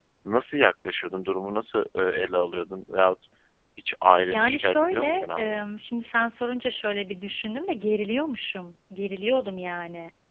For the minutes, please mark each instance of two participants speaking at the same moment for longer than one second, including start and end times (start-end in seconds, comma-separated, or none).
4.3-5.6